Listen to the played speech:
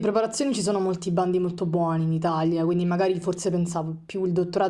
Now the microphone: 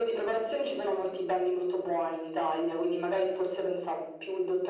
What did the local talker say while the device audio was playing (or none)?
none